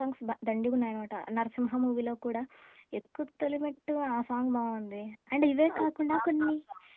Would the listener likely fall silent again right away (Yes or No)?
No